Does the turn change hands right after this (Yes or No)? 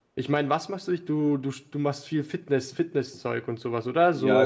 Yes